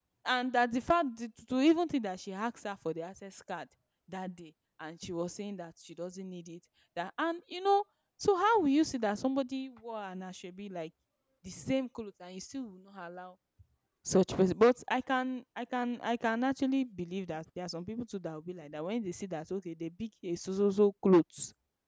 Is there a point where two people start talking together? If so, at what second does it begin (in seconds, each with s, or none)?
none